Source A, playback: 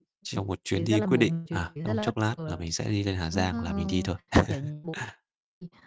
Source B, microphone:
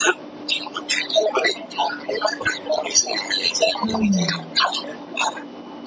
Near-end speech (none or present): present